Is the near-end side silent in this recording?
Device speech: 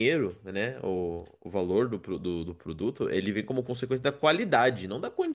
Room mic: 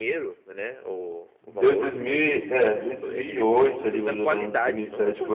No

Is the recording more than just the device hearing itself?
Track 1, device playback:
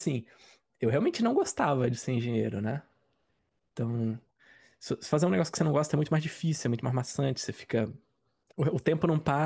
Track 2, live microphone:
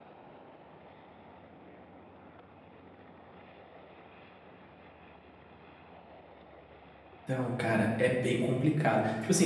Yes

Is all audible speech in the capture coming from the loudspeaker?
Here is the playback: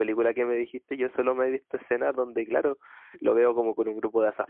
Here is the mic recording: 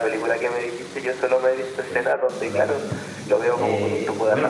No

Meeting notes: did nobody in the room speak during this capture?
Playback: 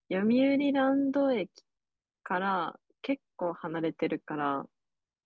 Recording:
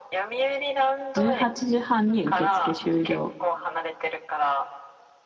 No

